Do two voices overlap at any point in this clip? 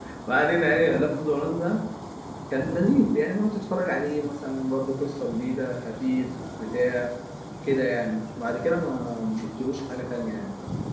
No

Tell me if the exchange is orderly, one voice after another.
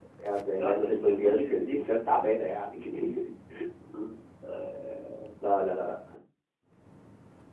No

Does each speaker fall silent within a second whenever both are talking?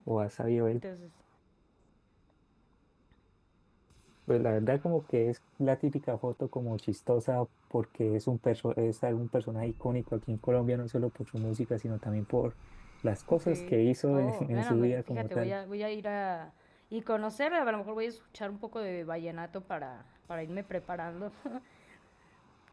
No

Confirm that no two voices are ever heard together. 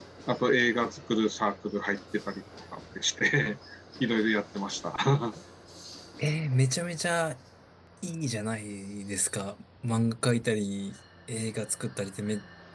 Yes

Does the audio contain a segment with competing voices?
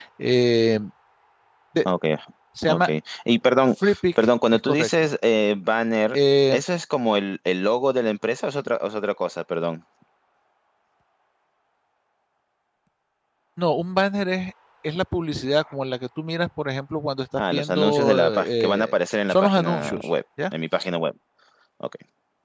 Yes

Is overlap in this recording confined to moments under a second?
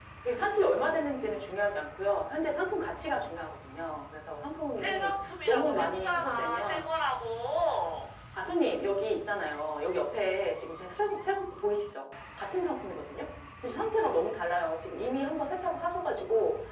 No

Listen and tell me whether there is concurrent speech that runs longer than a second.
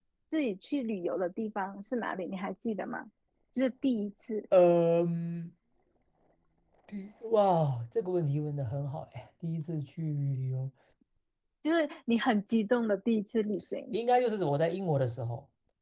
No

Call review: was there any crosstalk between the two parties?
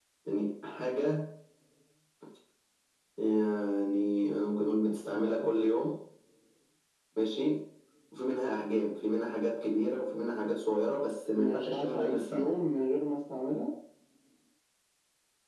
Yes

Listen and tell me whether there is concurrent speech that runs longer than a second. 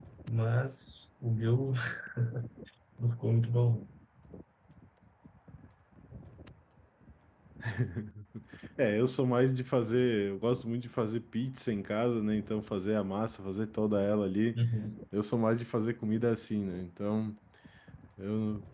No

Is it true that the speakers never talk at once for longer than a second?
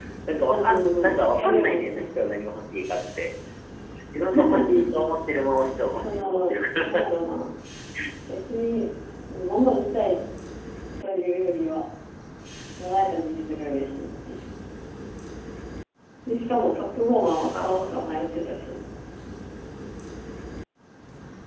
No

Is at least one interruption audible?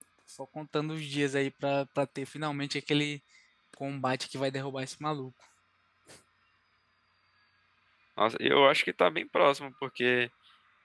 No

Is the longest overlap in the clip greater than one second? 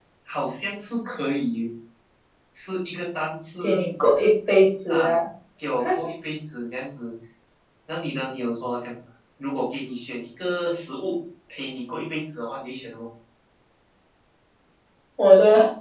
No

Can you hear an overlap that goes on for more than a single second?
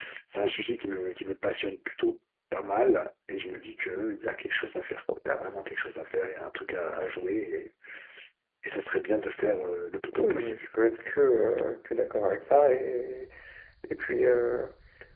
No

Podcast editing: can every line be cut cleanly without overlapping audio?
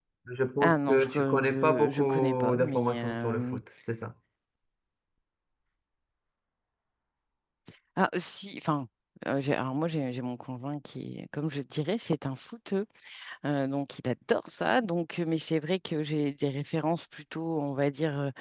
No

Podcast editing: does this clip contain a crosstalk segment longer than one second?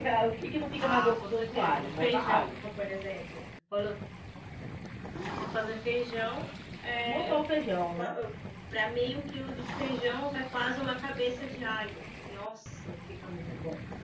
Yes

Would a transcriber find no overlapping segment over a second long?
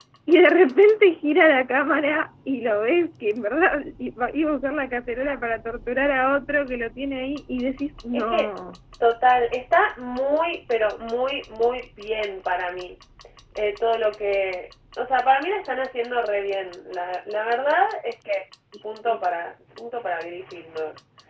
Yes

